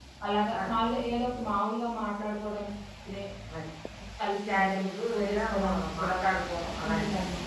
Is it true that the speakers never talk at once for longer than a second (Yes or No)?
No